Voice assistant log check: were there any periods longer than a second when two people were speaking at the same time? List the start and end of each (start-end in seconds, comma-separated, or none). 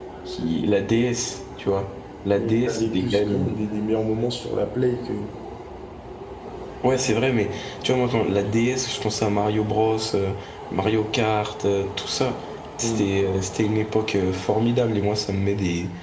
2.4-3.6